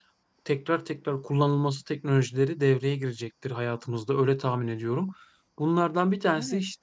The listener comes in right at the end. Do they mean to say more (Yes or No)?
No